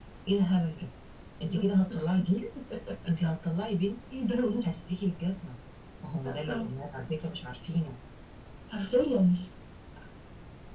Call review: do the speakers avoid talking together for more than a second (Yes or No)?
Yes